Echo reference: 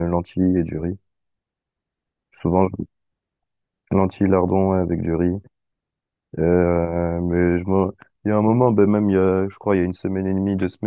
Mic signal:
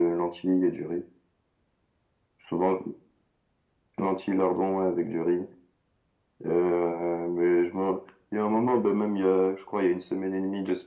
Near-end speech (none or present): none